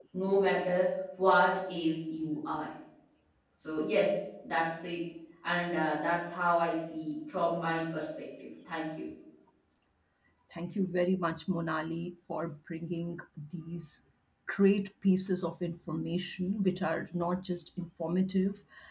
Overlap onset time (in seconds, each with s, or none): none